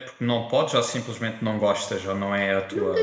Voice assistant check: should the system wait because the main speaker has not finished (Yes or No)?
No